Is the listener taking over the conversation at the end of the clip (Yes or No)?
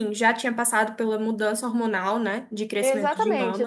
Yes